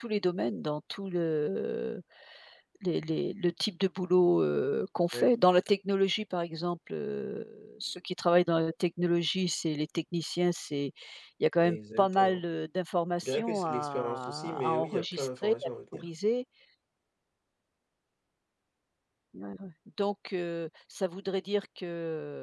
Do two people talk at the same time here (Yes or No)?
Yes